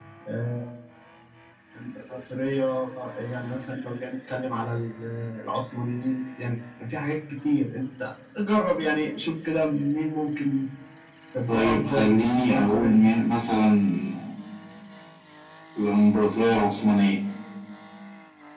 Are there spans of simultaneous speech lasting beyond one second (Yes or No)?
Yes